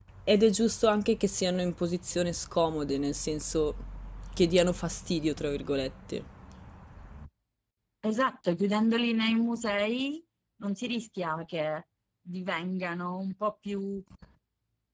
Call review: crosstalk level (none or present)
none